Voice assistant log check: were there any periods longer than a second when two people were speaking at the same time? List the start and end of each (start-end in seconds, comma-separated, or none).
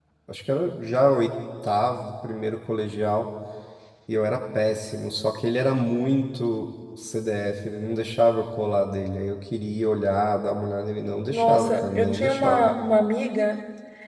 11.3-12.7